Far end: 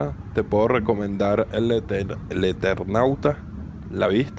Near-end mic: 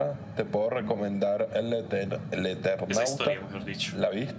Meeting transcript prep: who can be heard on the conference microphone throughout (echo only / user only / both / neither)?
both